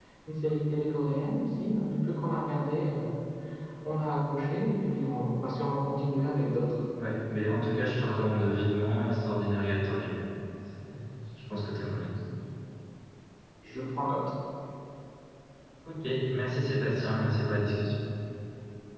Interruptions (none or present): none